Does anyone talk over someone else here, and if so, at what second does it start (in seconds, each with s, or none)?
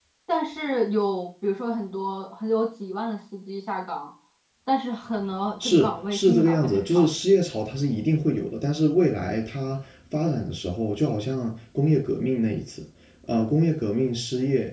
5.6 s